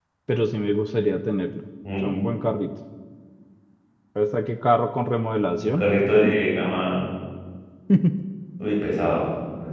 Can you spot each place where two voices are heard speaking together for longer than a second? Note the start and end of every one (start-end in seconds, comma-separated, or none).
none